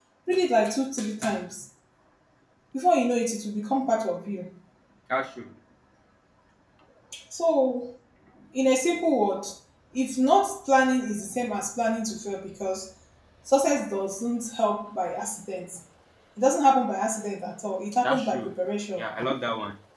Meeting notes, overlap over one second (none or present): none